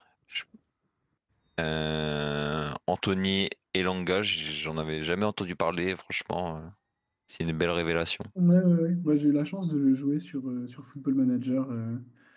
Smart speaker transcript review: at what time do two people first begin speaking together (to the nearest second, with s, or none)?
none